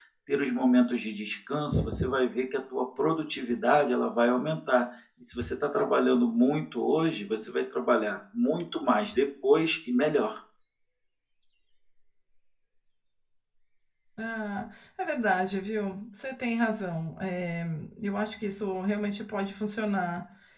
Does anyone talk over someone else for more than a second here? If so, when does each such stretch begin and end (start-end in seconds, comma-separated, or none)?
none